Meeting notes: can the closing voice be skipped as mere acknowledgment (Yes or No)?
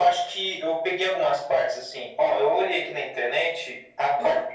Yes